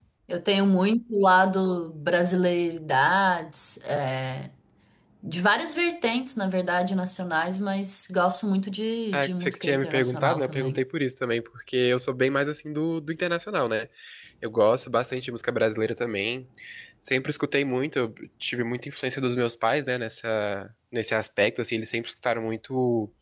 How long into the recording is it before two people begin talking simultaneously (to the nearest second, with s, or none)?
9 s